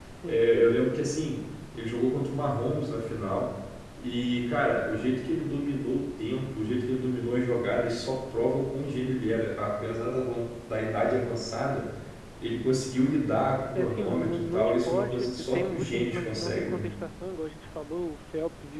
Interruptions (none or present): present